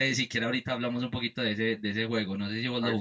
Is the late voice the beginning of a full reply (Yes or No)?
Yes